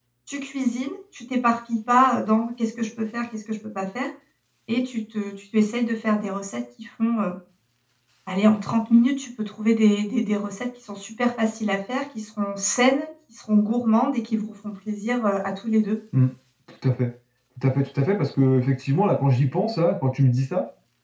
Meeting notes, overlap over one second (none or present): none